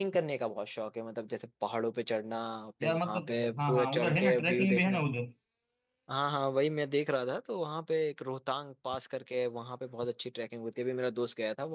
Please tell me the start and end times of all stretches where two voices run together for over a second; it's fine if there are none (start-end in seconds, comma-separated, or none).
2.8-5.0